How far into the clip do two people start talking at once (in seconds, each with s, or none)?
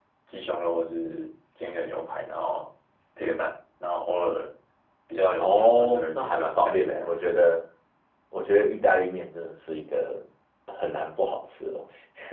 5.4 s